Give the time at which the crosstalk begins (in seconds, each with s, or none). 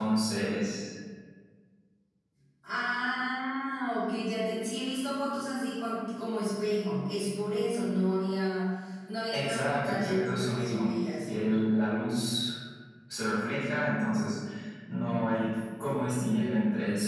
9.3 s